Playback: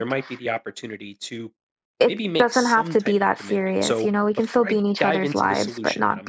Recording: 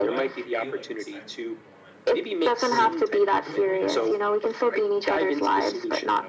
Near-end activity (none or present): present